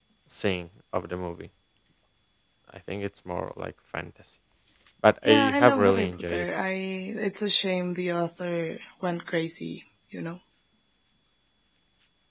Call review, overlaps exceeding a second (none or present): present